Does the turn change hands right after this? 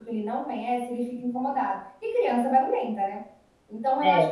No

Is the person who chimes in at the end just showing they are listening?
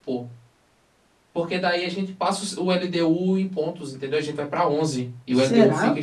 Yes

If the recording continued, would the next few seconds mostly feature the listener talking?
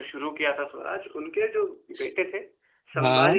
No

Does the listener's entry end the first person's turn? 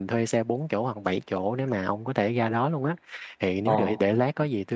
No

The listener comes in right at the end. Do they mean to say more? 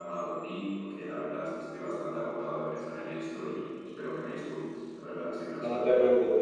Yes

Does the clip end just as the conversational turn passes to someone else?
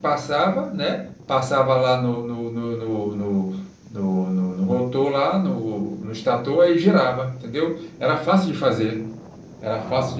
No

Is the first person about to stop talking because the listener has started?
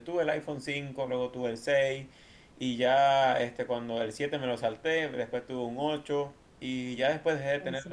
No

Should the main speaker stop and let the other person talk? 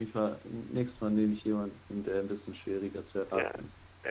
Yes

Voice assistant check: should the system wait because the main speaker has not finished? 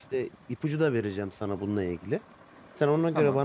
Yes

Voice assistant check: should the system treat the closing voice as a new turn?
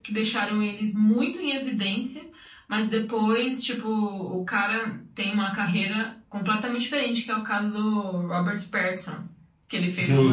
Yes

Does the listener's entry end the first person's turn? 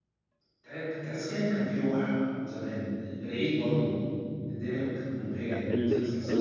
Yes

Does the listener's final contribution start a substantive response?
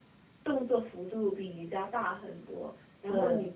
No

